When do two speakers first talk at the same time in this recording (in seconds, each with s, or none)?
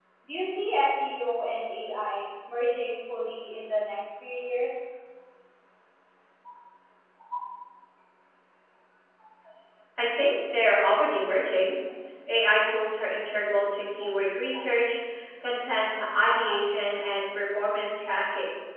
none